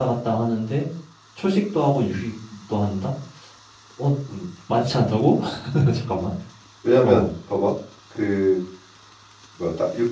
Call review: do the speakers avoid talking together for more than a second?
Yes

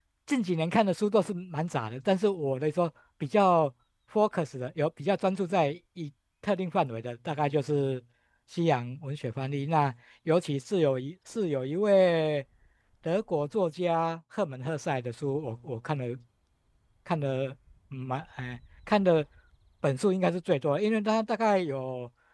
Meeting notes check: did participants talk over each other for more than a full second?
No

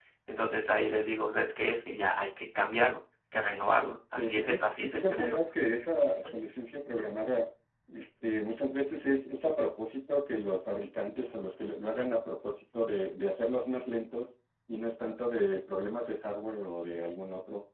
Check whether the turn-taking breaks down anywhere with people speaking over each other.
Yes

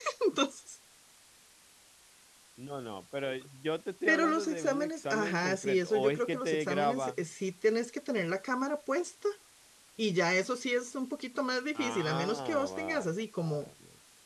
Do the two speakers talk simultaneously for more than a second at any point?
Yes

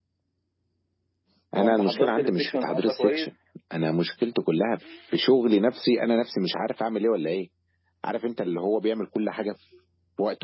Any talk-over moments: Yes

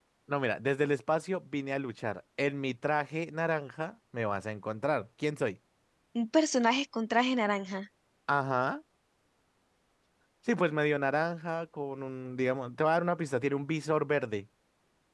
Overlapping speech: No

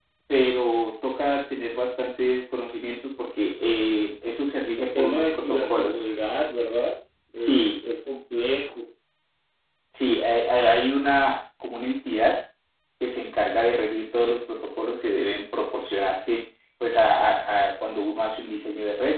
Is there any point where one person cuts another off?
Yes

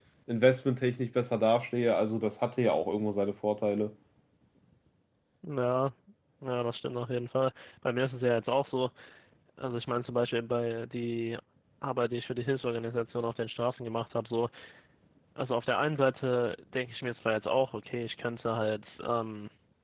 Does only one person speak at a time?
Yes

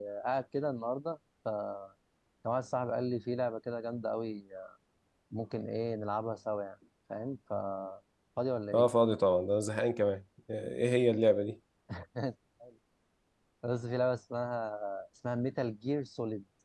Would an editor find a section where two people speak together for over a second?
No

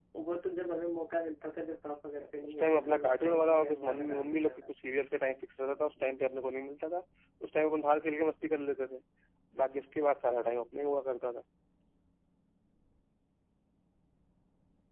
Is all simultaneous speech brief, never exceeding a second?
No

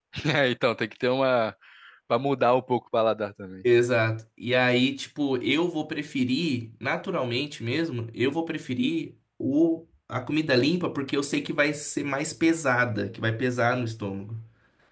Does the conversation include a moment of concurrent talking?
No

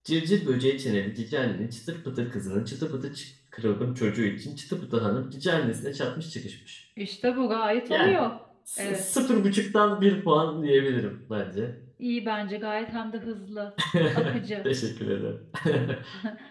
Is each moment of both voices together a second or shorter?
Yes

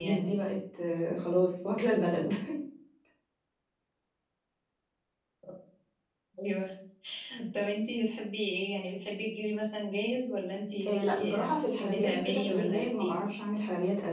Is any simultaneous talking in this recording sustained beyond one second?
Yes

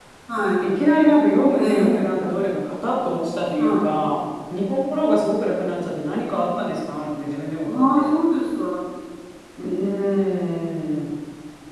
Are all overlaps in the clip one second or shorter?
Yes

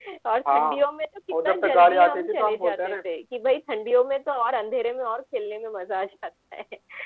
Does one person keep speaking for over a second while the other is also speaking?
Yes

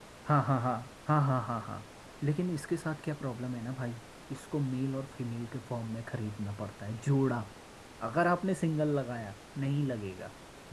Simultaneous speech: No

